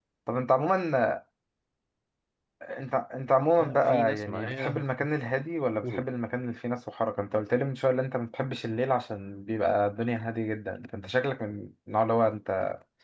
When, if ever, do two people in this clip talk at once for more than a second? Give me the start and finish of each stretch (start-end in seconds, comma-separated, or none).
3.6-4.8